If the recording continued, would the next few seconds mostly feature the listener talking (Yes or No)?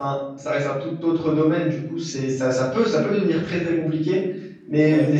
No